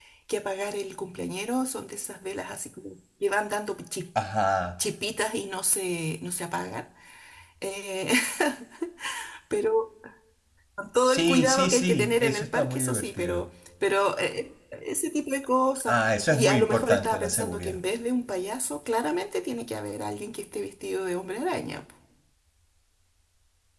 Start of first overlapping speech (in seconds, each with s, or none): 11.0 s